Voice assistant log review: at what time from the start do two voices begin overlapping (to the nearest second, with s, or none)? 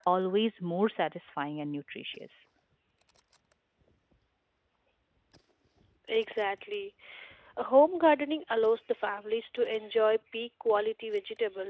none